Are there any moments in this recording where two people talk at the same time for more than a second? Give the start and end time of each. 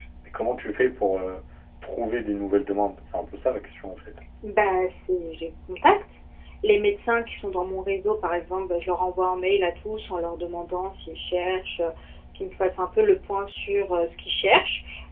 none

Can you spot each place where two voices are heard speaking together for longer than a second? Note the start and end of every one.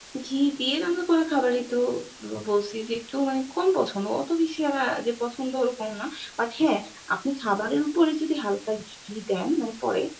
none

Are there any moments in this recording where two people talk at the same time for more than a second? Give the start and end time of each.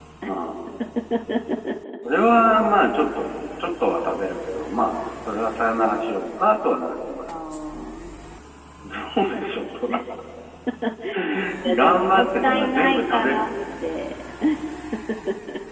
11.8-13.5

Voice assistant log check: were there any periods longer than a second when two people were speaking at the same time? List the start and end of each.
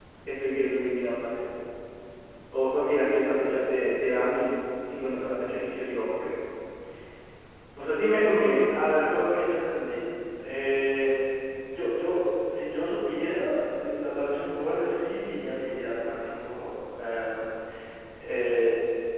none

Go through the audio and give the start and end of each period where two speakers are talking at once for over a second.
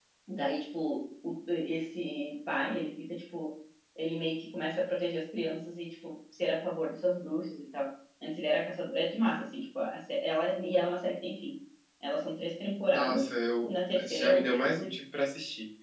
13.6-14.9

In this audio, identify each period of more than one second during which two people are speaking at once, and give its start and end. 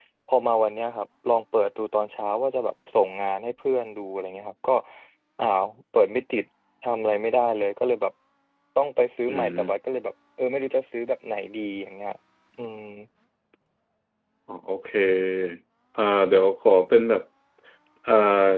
none

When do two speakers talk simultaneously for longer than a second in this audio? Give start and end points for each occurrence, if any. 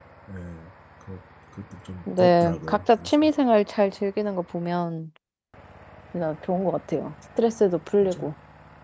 2.1-3.3

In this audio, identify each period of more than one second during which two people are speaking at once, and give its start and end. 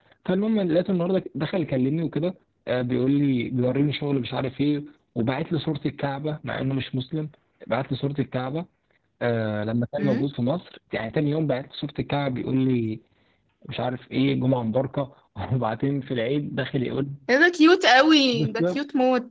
none

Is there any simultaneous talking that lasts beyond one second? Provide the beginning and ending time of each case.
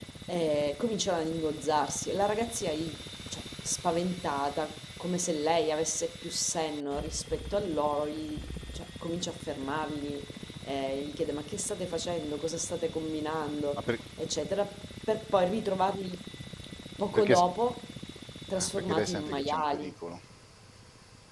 18.6-19.9

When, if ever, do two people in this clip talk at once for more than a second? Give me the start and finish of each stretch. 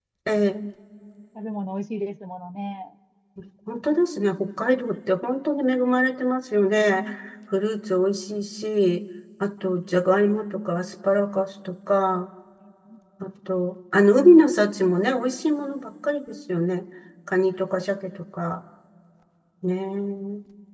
none

